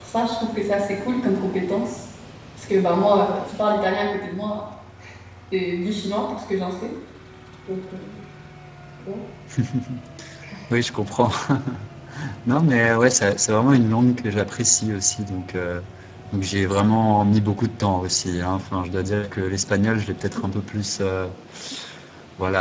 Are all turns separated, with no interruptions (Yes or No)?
Yes